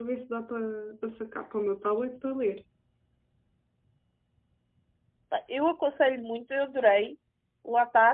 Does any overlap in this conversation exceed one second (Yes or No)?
No